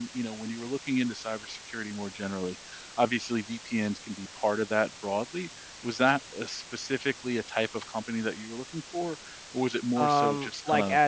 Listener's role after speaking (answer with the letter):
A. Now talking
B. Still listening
A